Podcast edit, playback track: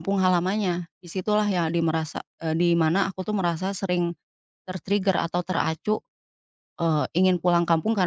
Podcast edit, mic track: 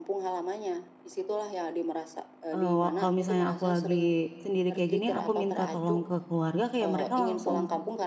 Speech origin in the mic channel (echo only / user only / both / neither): both